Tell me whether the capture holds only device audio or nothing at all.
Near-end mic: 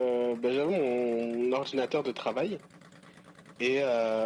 Yes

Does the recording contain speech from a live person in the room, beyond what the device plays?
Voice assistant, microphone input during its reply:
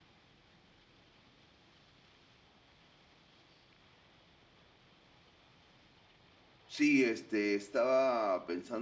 Yes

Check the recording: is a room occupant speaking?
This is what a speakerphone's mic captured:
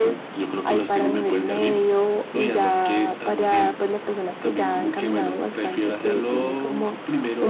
No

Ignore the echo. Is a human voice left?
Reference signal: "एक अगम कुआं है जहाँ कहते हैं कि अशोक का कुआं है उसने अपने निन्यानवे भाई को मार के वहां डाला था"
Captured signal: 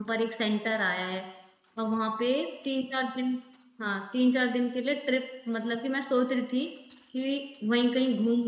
Yes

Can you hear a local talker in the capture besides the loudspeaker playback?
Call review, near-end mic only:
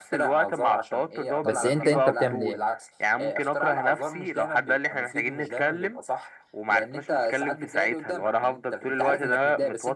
Yes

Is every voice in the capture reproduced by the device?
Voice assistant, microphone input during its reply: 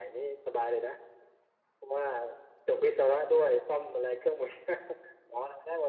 Yes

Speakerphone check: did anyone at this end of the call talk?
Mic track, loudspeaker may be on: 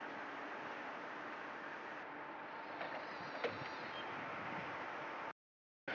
No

